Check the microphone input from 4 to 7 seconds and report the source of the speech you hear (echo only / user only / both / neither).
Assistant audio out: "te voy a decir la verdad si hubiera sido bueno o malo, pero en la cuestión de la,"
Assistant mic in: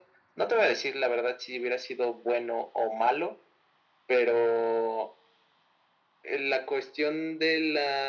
echo only